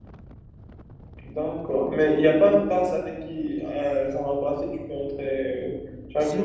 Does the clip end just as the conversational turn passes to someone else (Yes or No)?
Yes